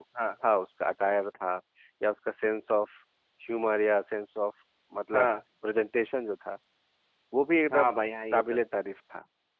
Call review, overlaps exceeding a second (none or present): none